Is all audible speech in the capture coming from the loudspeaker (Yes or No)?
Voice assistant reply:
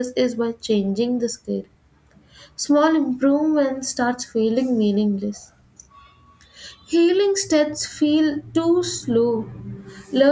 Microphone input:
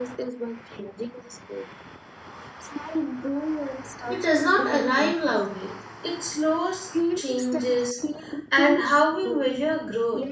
No